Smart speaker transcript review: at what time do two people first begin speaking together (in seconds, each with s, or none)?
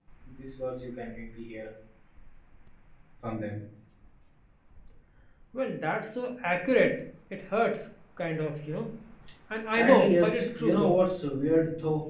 9.7 s